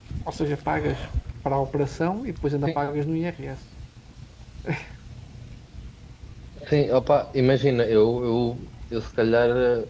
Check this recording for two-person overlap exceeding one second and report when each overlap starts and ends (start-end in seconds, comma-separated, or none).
none